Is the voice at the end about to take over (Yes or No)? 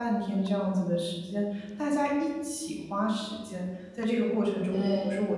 No